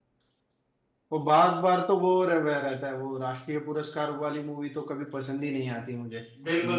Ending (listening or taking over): taking over